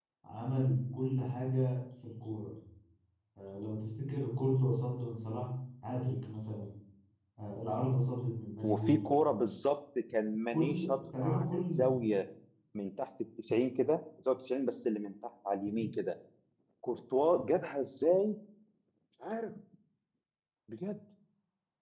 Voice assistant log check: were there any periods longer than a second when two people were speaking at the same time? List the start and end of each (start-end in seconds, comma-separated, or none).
10.5-11.8